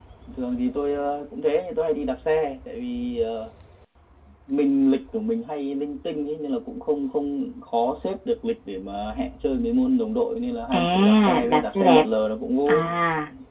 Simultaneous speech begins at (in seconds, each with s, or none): 10.7 s